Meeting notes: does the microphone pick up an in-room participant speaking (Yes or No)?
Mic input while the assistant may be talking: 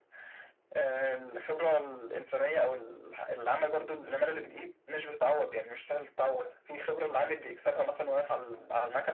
No